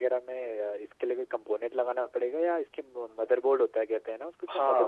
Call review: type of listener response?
taking over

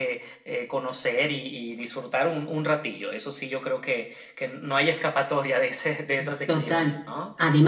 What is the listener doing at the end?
taking over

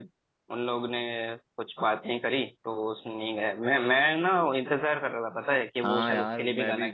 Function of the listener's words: taking over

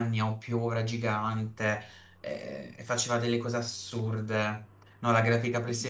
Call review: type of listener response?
listening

